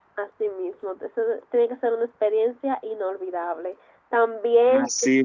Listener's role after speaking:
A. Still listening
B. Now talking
A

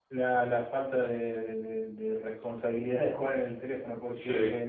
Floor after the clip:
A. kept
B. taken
A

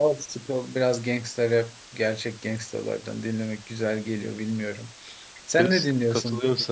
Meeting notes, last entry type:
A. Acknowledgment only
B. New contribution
B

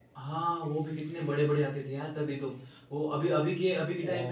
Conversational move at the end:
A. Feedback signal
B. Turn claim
A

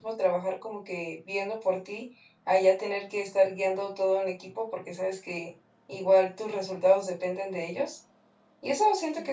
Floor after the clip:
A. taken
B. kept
B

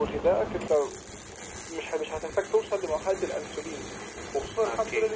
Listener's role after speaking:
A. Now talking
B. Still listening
B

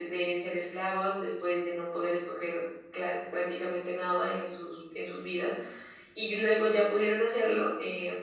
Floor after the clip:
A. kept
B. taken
A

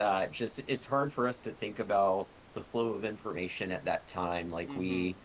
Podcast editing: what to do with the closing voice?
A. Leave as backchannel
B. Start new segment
A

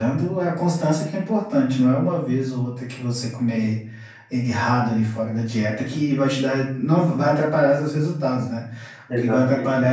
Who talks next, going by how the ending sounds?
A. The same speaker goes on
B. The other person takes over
A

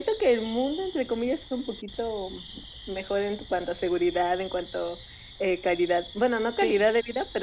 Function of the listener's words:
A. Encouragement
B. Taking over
A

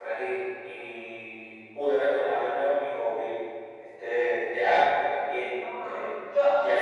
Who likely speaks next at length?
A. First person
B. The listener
B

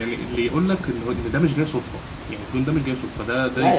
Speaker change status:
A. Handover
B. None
A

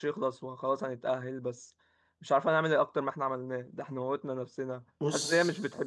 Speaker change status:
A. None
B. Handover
A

